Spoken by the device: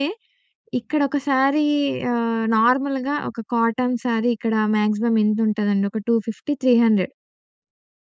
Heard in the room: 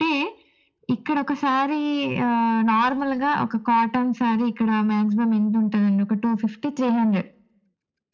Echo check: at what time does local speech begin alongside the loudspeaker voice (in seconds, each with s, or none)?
none